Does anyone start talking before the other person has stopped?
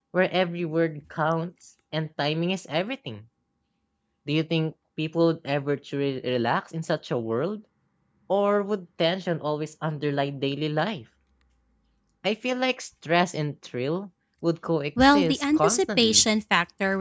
Yes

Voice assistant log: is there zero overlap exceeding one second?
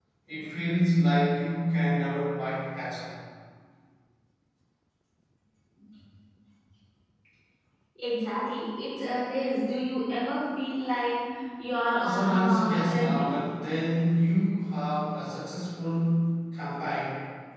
No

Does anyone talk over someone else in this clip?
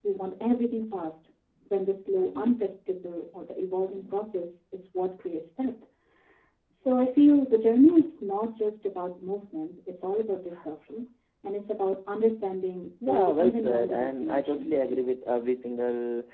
Yes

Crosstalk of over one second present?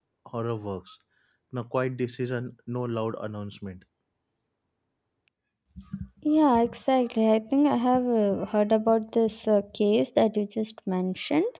No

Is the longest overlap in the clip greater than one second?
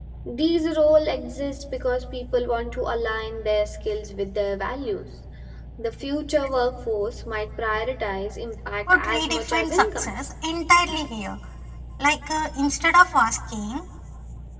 Yes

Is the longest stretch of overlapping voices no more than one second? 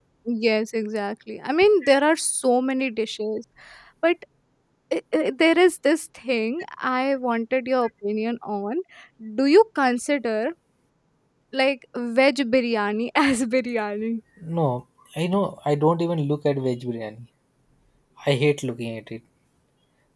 Yes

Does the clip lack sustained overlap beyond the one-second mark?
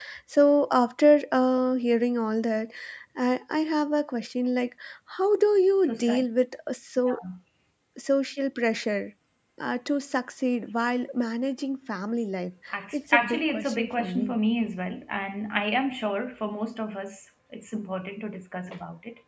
No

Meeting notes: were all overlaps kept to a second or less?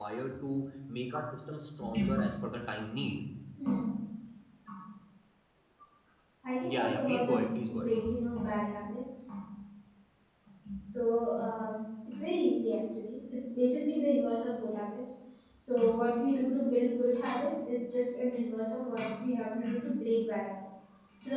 No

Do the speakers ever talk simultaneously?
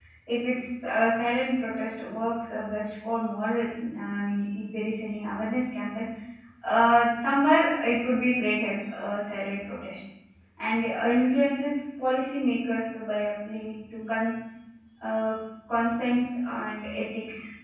No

